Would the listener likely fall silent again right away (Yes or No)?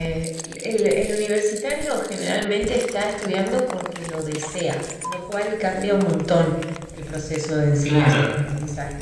Yes